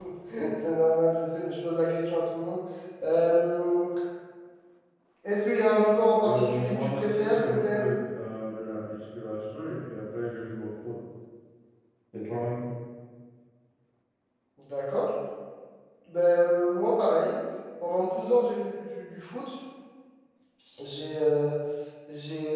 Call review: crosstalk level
present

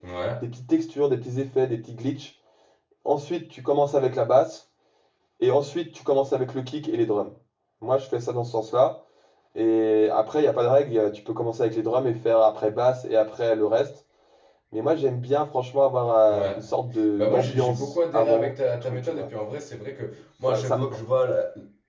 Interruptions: present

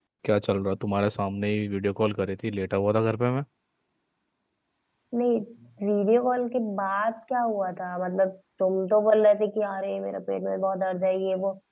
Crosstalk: none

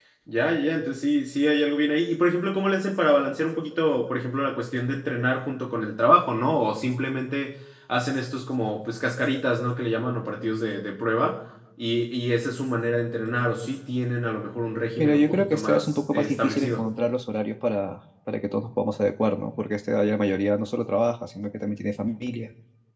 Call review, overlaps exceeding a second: present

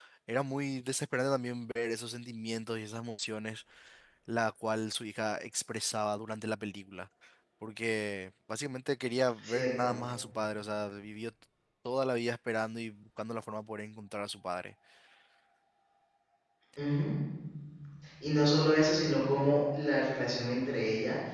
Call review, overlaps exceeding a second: none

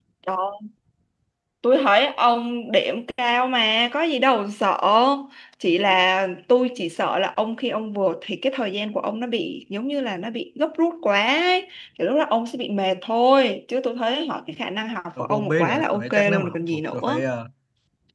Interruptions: present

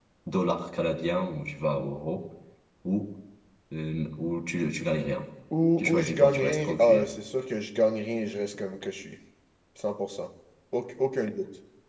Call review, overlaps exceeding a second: present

